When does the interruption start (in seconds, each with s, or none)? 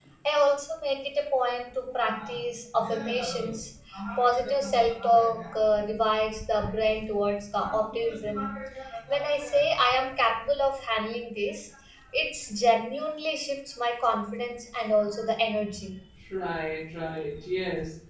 none